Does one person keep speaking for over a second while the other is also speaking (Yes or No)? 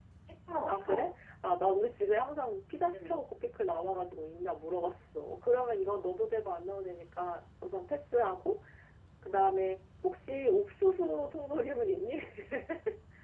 No